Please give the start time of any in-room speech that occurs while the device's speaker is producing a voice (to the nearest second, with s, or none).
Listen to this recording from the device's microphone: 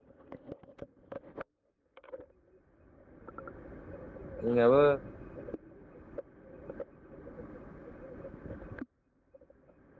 4 s